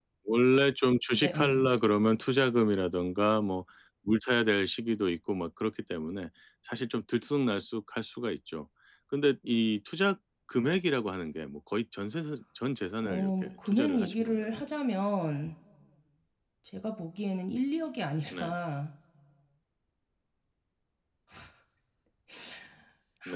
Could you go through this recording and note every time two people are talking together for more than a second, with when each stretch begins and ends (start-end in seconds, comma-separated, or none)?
13.0-14.6